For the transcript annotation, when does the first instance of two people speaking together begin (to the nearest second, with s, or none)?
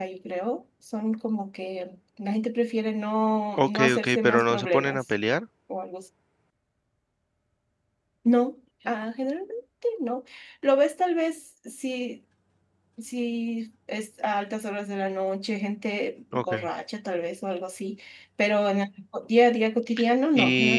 4 s